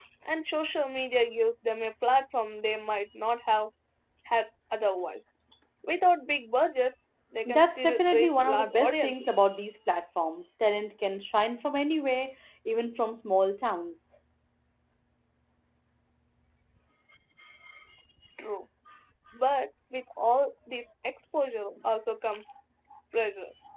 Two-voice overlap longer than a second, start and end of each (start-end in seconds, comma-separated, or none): 7.4-9.3